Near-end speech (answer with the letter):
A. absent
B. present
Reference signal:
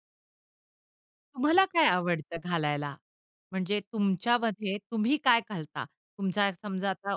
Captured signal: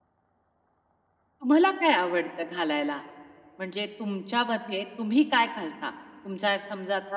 A